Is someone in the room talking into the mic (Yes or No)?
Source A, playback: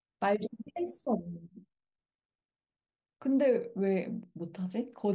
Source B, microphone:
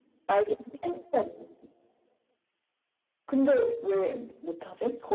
No